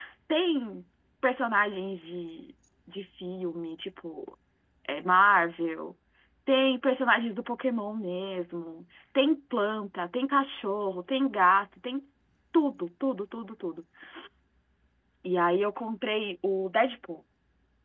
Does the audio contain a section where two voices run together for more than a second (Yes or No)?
No